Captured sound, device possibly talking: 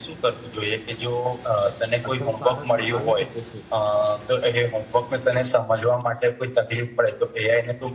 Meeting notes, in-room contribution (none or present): present